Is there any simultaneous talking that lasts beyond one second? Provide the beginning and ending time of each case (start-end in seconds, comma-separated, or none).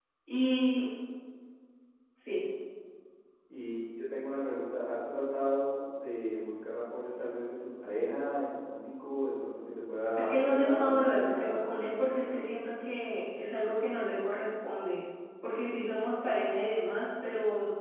10.2-12.4